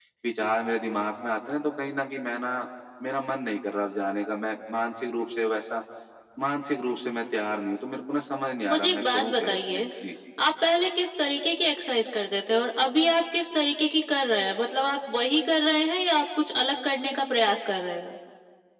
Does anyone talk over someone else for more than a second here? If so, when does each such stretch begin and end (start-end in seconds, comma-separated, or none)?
8.7-9.9